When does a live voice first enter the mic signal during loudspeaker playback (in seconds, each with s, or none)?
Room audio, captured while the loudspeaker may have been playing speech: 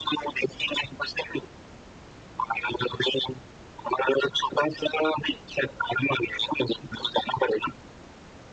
none